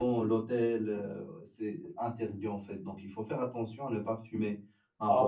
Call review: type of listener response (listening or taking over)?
taking over